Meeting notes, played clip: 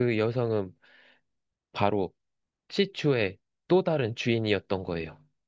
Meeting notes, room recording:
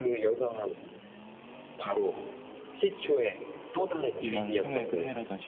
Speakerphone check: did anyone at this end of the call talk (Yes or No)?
Yes